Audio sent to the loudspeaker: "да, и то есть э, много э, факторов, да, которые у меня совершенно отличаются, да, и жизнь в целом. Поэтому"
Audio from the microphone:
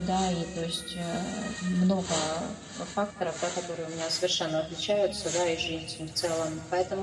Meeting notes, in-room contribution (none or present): none